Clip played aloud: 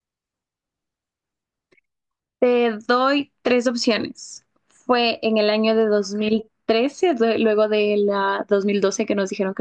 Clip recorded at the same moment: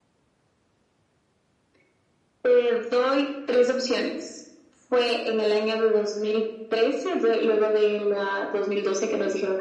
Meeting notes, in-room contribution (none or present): none